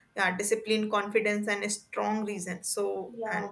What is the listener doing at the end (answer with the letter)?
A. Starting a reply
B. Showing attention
B